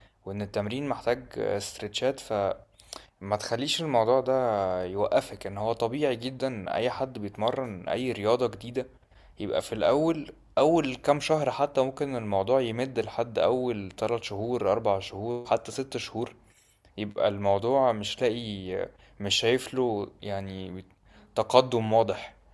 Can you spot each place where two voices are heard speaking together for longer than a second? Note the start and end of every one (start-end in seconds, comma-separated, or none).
none